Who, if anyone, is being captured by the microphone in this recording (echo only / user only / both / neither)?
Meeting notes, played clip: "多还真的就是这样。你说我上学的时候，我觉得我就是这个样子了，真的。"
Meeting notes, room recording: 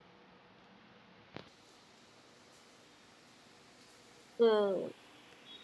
user only